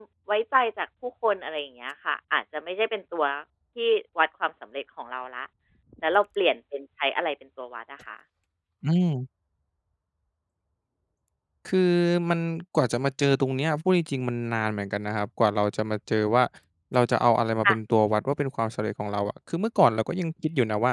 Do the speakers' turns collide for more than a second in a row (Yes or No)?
No